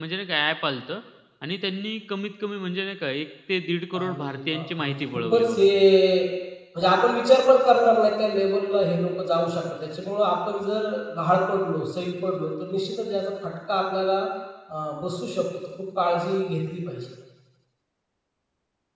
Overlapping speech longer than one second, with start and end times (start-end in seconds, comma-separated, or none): 4.0-5.6